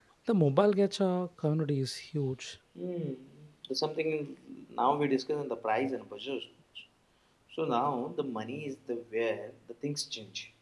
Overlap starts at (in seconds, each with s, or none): none